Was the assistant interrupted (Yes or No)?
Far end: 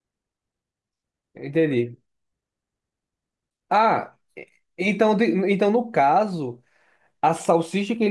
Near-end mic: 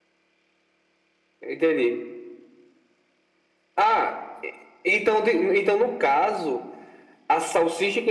No